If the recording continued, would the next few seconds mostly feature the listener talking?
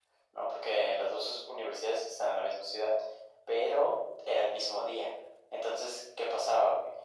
No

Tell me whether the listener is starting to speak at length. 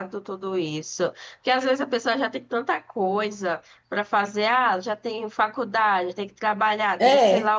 No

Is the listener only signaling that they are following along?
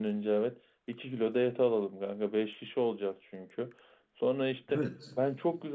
Yes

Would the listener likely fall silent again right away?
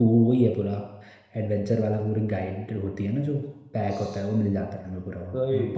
Yes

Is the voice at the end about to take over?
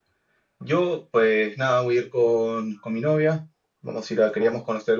No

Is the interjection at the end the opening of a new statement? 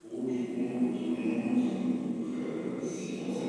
Yes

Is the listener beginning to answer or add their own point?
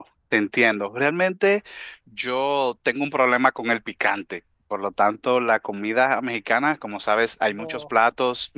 No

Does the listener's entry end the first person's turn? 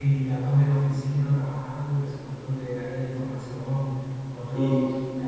No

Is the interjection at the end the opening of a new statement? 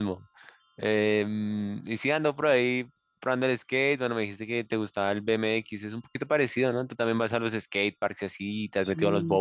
Yes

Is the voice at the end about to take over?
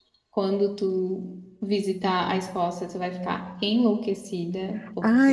Yes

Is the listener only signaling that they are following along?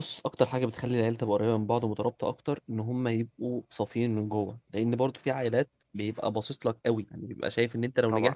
Yes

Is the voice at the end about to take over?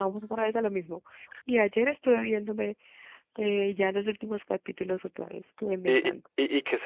Yes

